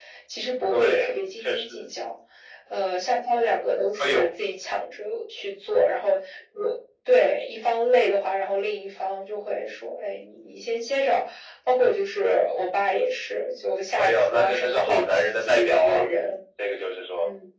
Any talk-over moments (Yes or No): Yes